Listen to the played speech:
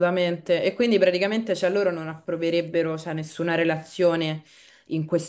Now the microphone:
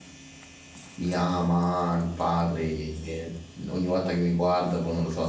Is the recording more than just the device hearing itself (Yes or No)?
Yes